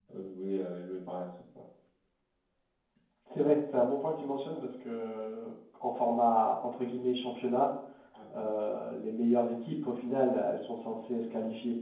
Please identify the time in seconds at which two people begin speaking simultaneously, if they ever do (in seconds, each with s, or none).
none